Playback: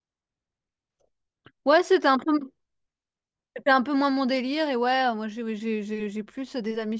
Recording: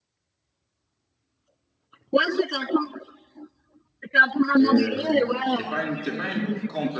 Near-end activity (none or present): present